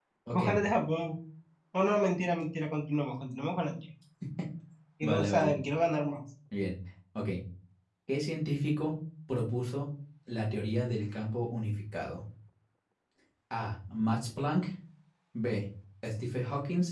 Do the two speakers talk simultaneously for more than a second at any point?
No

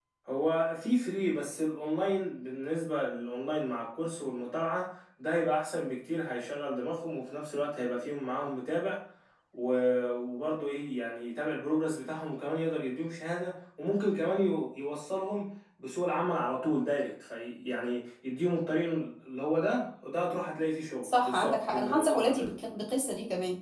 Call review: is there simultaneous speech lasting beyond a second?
Yes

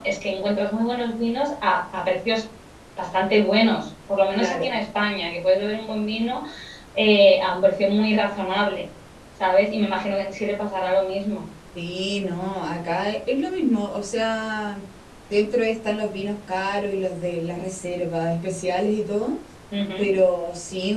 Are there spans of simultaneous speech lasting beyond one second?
No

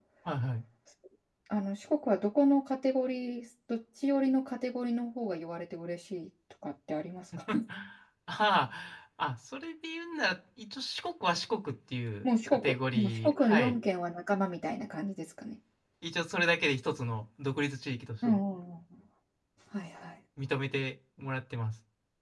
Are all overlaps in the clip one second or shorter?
No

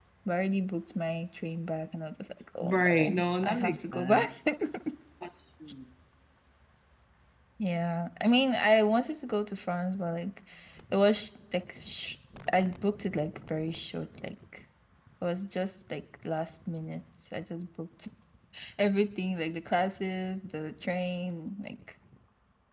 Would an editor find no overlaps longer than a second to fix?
No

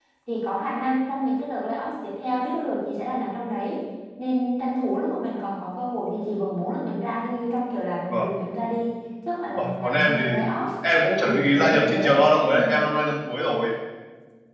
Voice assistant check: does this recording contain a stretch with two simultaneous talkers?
Yes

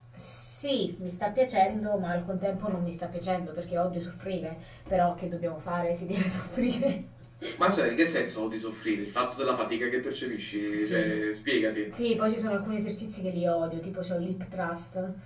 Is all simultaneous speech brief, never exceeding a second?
Yes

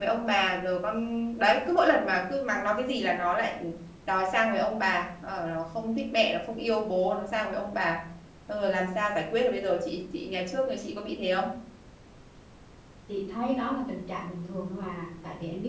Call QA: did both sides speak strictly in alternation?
Yes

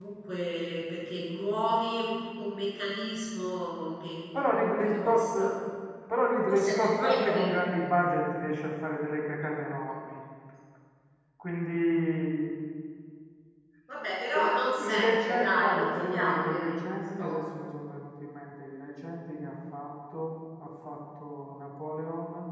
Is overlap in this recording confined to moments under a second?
No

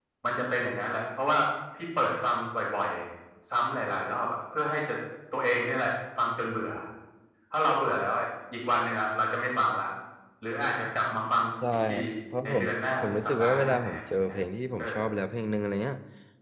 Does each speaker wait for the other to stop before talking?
No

